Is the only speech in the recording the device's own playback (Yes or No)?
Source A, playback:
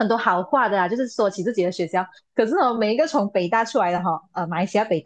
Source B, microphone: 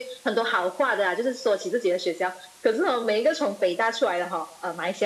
Yes